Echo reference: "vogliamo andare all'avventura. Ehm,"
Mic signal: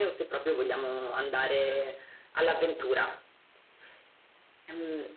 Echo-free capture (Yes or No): No